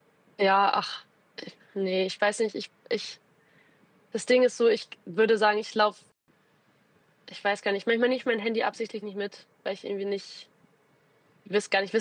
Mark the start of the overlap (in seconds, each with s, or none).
none